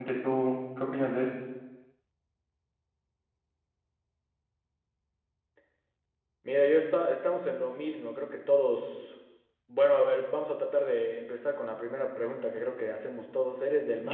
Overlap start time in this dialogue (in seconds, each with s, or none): none